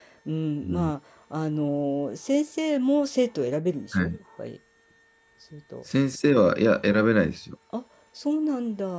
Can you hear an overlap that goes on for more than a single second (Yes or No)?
No